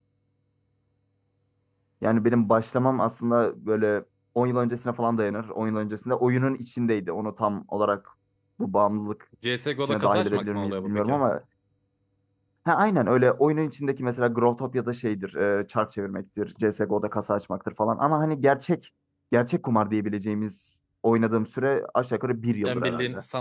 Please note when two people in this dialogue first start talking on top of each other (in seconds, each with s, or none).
9.9 s